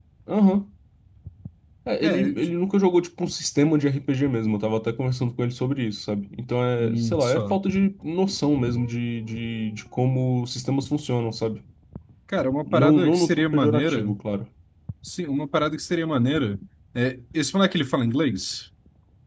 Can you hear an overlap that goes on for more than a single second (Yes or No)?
Yes